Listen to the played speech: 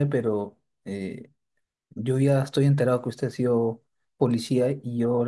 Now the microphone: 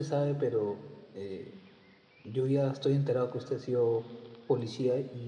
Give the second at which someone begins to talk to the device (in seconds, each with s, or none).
none